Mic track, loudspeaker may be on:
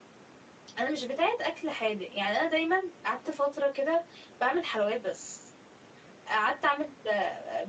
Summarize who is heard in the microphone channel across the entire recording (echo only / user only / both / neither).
user only